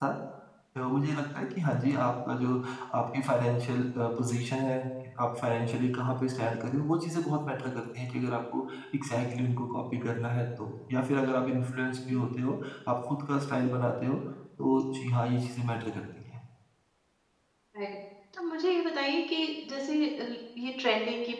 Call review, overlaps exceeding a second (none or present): none